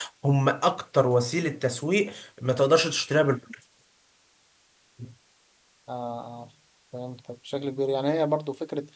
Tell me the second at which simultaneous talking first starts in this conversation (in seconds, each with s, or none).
none